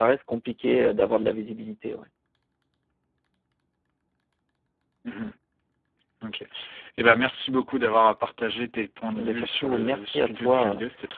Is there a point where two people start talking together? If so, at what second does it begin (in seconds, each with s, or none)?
9.1 s